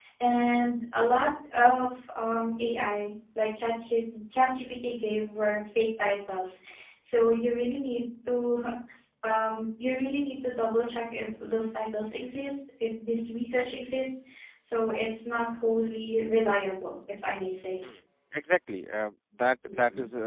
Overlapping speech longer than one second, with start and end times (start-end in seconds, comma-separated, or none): none